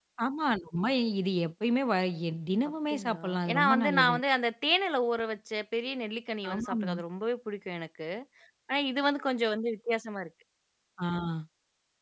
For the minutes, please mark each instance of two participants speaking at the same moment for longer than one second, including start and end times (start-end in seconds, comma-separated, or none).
2.9-4.2